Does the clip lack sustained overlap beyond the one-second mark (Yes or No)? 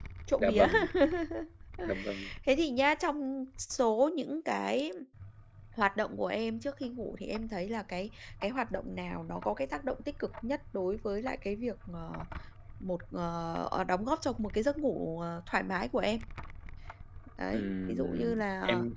No